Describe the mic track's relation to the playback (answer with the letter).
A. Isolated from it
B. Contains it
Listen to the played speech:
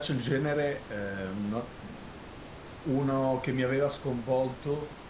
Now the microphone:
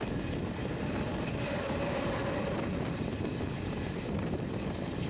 A